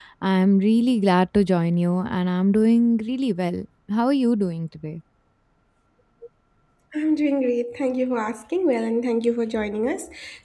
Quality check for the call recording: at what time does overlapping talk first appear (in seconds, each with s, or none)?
none